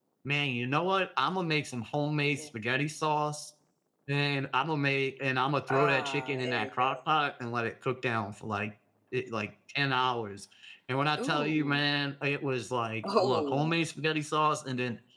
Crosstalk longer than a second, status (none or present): present